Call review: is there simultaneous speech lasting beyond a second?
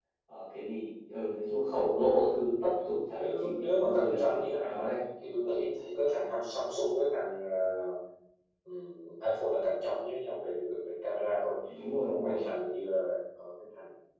Yes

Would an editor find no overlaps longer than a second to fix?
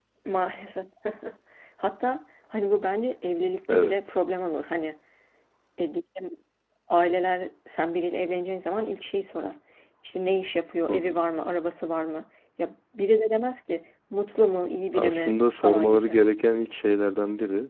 No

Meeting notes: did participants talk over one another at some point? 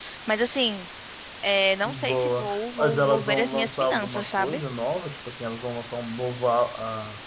Yes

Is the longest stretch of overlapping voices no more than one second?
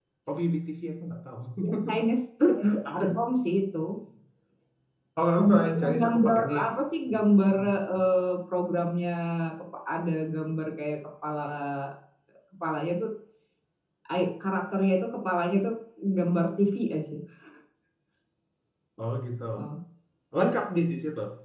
No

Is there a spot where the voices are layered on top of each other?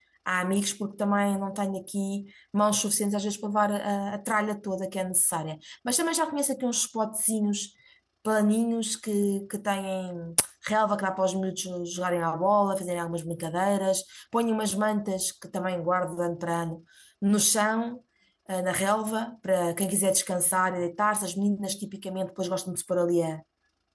No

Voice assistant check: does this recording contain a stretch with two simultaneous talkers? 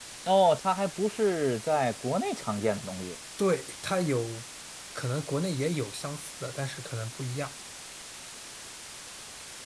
No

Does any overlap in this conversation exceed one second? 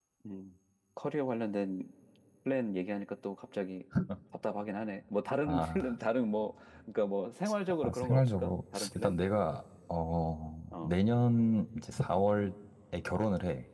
Yes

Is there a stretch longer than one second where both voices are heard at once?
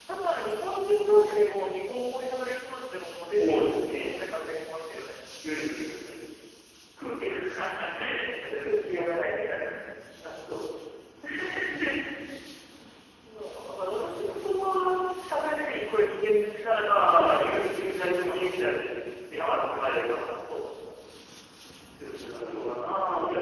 Yes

